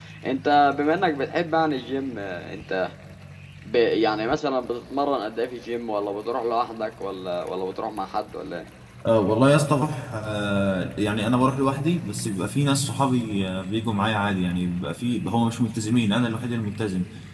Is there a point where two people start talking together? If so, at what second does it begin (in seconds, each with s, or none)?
none